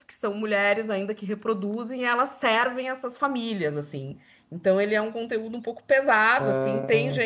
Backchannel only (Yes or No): Yes